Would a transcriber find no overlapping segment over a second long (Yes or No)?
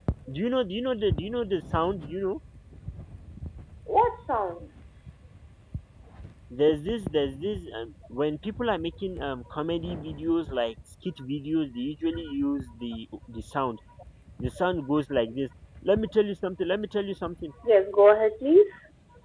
Yes